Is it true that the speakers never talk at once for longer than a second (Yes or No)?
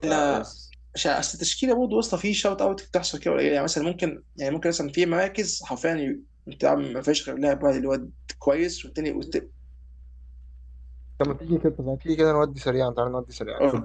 Yes